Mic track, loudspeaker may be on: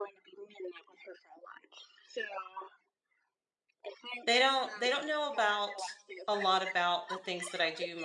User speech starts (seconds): 4.2 s

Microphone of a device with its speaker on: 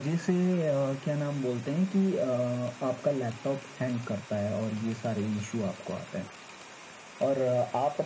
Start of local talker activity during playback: none

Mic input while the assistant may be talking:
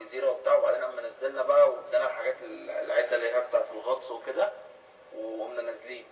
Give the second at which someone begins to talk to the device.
none

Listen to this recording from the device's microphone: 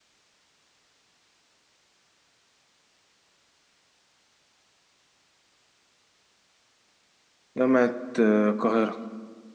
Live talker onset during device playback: 7.6 s

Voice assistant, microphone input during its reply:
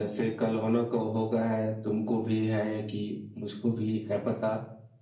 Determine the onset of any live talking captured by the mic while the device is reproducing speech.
none

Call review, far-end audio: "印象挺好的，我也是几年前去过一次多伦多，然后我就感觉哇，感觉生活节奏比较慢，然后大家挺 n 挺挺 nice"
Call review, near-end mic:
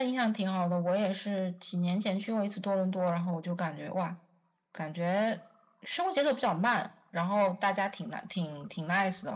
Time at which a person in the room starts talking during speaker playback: none

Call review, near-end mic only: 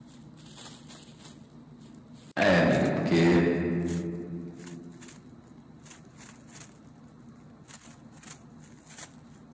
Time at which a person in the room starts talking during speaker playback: 2.3 s

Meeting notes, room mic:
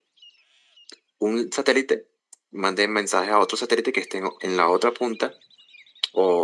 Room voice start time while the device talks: none

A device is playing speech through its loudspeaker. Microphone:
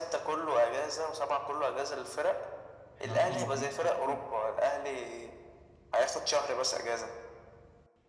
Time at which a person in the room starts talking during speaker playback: 3.0 s

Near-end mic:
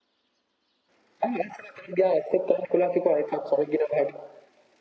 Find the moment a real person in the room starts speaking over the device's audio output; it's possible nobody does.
none

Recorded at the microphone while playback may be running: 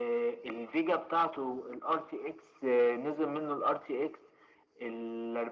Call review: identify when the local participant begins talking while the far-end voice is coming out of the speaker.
none

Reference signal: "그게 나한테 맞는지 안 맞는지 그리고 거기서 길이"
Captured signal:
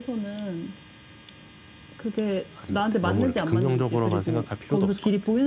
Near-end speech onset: 2.5 s

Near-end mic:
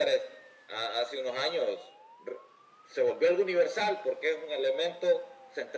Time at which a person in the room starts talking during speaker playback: none

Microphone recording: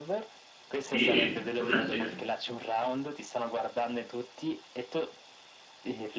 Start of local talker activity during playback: 0.8 s

